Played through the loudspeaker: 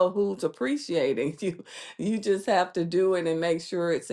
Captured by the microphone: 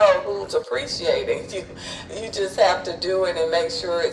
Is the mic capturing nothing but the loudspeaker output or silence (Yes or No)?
Yes